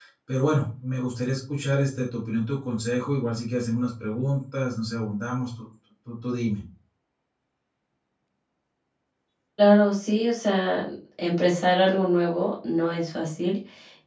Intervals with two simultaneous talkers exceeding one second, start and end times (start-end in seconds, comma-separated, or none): none